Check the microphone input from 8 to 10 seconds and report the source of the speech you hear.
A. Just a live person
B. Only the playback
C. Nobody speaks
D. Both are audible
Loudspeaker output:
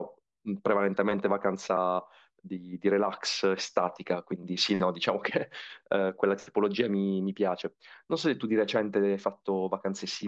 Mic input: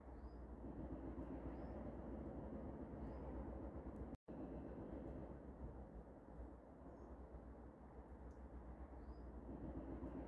C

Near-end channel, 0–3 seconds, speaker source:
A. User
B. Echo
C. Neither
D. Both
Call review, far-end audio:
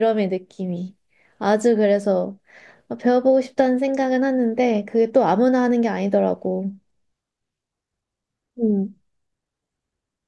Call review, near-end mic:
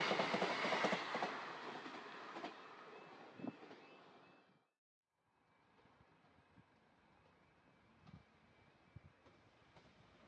C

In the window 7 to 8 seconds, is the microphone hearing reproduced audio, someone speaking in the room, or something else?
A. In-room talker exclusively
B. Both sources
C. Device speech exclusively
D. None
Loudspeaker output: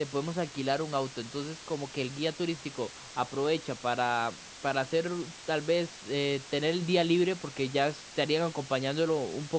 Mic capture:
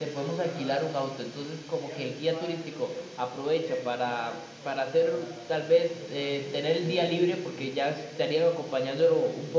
B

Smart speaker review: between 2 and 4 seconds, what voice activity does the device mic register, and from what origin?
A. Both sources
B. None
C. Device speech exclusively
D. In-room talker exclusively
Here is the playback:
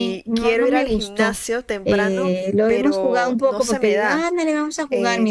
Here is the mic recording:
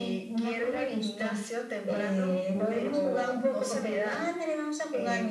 C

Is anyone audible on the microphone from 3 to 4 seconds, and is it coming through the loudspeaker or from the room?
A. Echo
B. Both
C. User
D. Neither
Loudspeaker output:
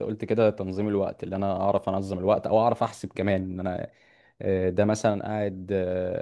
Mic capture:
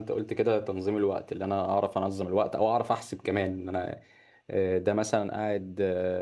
A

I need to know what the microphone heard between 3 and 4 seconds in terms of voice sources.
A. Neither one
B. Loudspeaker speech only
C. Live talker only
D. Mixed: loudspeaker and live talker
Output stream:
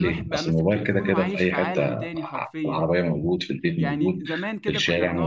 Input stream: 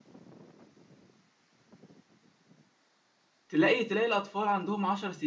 C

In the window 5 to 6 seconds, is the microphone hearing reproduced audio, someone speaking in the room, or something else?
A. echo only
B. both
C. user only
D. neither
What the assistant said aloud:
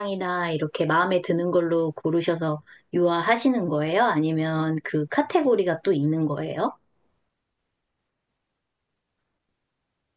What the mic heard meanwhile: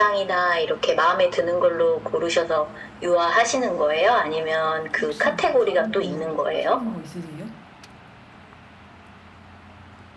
B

